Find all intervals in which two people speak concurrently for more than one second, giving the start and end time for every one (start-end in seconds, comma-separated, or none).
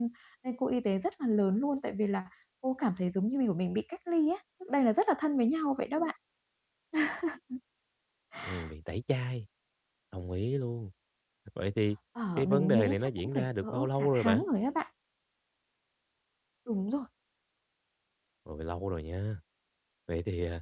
12.4-14.4